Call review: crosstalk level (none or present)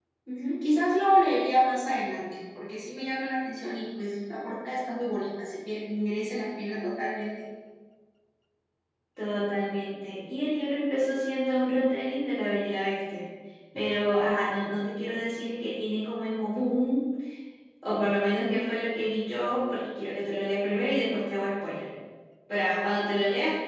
none